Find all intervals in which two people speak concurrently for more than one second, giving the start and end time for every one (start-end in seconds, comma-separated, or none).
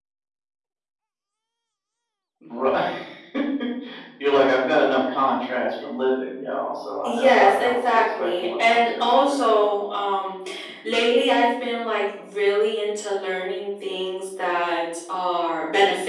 7.1-9.4